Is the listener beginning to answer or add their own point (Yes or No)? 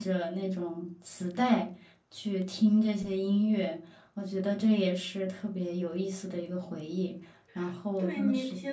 Yes